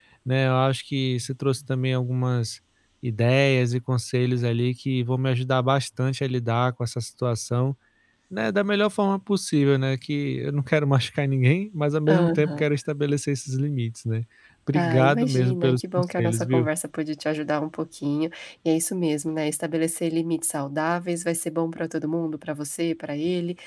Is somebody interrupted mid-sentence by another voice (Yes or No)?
Yes